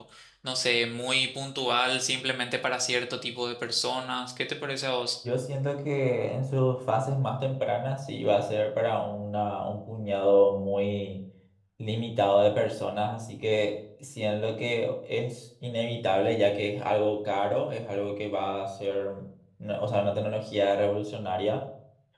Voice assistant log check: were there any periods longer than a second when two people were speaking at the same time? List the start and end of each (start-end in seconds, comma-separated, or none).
none